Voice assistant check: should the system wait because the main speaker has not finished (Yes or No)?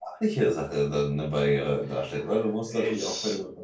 Yes